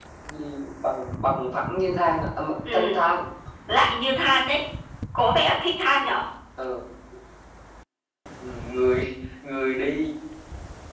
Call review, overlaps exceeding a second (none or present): none